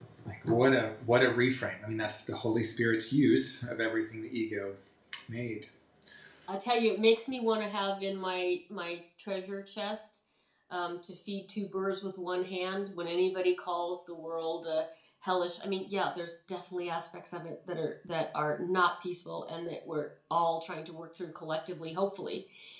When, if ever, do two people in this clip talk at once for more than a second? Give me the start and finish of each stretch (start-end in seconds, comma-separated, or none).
none